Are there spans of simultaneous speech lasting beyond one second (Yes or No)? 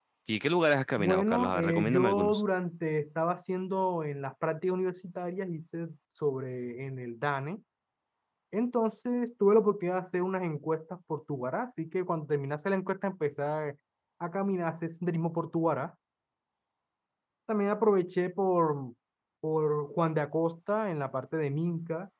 Yes